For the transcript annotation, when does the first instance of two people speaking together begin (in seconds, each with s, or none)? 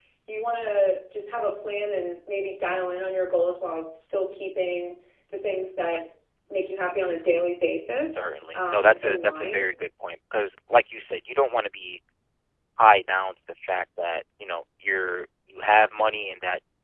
8.1 s